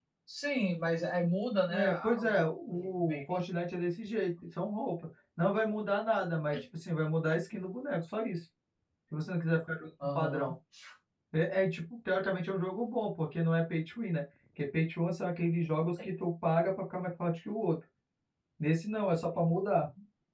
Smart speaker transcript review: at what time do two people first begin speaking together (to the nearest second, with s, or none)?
2 s